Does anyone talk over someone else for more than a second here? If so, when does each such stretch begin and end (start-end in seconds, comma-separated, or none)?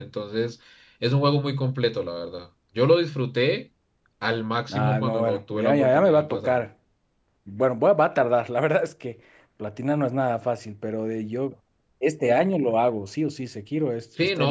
4.7-6.6